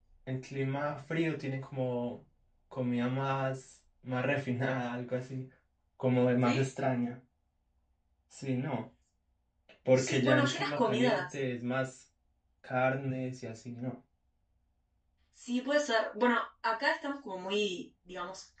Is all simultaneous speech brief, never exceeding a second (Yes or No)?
No